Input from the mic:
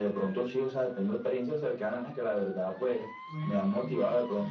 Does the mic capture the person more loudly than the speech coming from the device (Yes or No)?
No